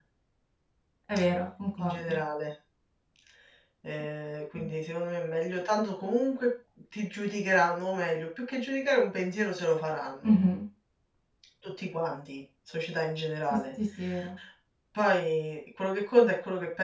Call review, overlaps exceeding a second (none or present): none